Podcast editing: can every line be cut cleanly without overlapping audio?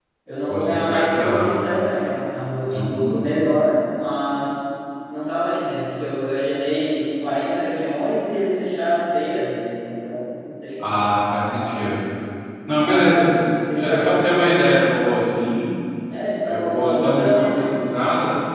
No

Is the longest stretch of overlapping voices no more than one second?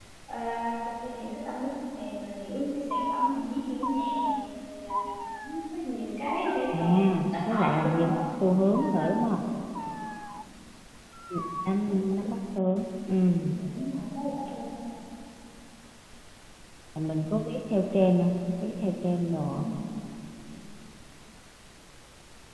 No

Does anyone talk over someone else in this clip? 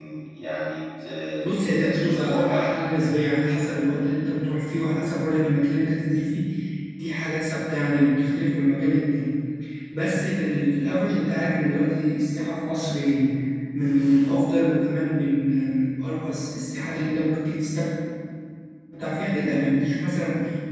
Yes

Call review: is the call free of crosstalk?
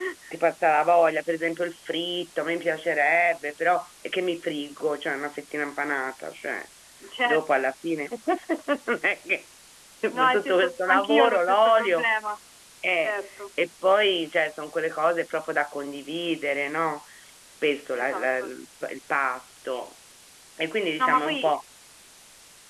No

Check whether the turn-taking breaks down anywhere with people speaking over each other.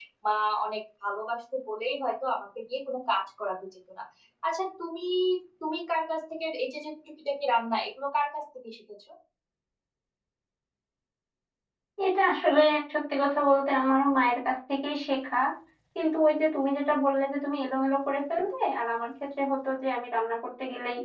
No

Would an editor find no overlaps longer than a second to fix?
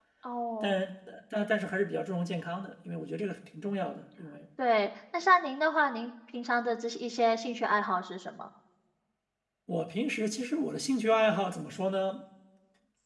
Yes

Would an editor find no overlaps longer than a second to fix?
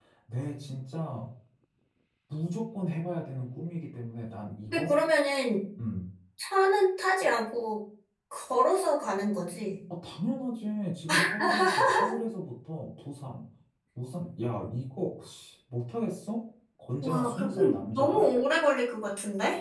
No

